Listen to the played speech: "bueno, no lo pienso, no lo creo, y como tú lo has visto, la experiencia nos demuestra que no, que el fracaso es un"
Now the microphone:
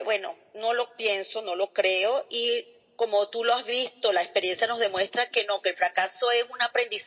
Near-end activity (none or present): none